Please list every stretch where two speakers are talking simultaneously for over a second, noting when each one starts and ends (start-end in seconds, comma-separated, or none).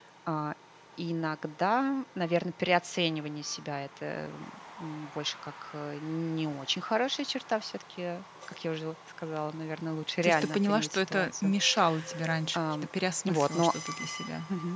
10.2-11.5